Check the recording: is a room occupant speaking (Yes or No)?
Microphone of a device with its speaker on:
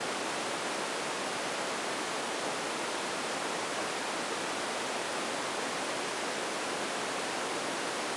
No